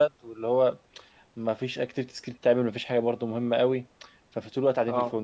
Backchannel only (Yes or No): Yes